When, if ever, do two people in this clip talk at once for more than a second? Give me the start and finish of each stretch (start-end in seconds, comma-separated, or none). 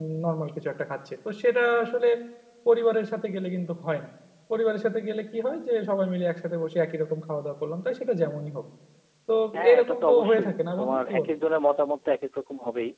9.7-11.3